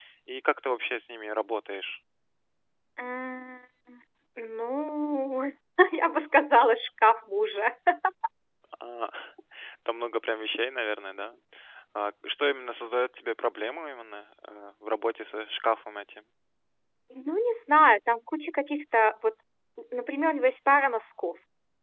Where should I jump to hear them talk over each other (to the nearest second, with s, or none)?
none